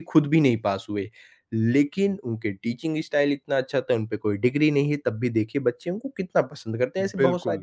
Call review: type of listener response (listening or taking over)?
taking over